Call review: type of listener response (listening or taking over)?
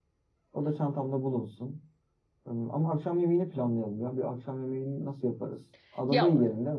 taking over